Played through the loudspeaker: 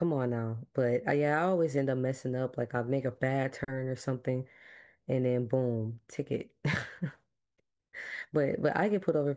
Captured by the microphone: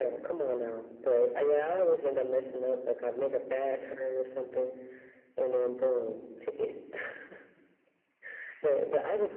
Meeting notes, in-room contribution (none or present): none